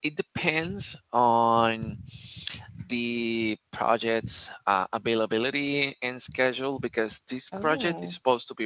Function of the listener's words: listening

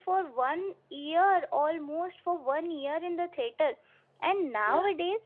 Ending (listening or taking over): listening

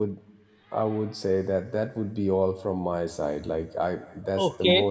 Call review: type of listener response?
taking over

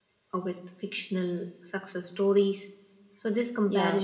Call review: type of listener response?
listening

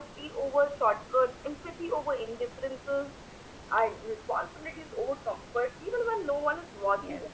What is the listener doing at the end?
taking over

